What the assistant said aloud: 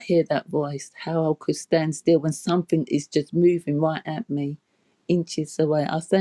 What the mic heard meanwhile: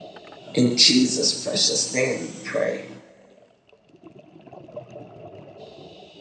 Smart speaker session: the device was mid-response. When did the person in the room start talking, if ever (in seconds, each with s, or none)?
0.5 s